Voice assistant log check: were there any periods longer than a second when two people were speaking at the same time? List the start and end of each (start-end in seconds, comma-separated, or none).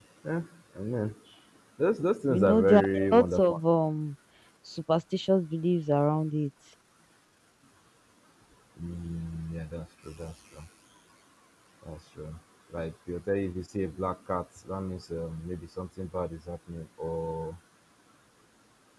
2.3-3.6